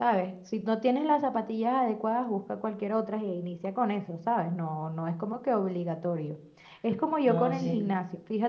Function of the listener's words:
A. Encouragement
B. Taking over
A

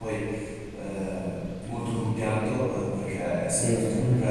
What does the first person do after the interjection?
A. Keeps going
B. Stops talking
A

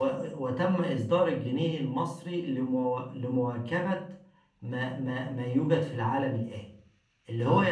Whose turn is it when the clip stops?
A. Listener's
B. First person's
B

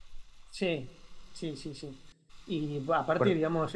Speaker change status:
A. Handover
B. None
B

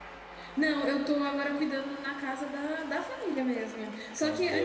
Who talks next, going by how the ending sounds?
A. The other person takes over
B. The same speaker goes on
B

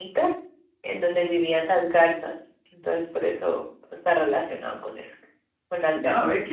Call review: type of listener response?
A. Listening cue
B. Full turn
B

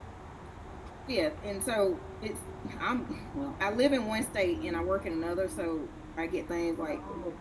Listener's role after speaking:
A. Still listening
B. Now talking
A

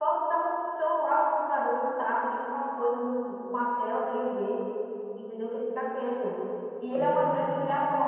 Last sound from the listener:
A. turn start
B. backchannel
B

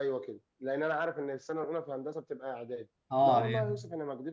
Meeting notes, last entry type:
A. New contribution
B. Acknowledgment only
B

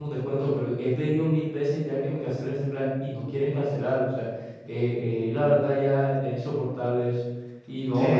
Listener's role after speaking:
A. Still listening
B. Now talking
A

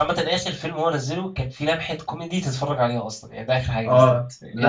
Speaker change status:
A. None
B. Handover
B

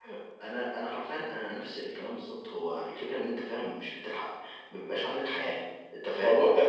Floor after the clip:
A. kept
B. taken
B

